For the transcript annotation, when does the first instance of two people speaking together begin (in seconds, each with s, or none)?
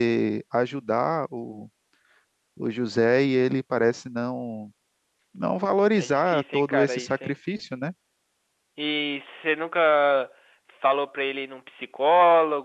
6.0 s